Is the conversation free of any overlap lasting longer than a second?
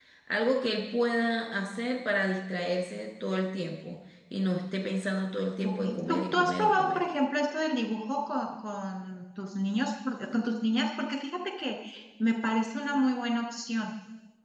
No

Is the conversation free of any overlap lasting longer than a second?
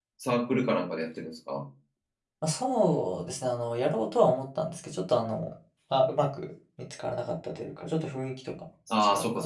Yes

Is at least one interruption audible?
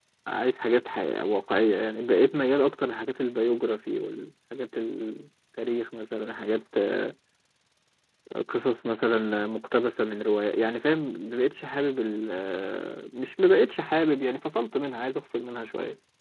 No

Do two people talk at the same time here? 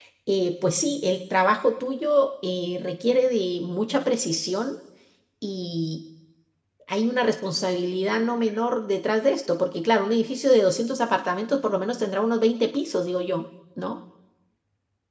No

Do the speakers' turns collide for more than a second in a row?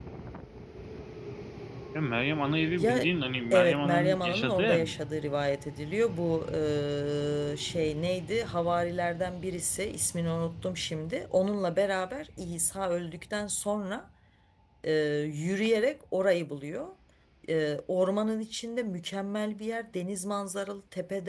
Yes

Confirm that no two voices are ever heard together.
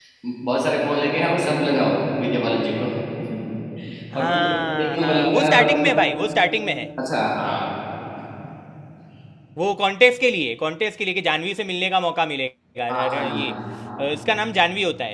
No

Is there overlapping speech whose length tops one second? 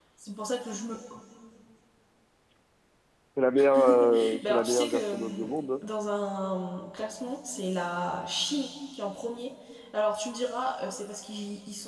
Yes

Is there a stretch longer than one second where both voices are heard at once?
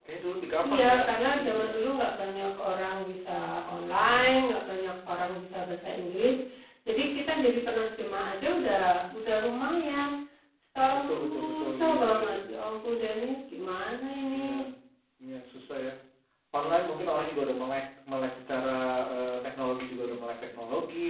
Yes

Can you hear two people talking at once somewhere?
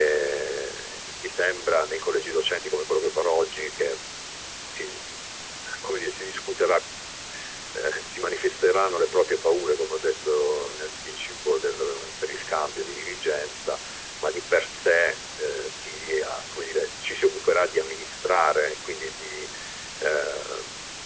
No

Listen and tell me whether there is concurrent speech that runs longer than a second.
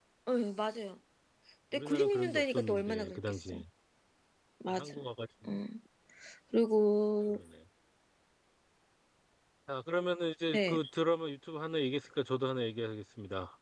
Yes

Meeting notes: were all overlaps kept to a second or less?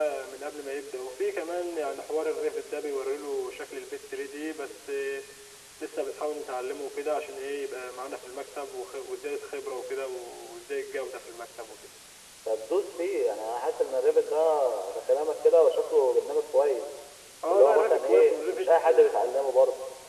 No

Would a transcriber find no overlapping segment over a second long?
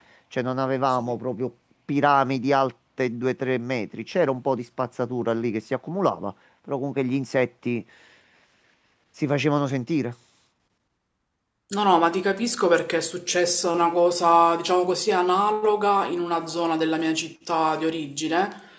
Yes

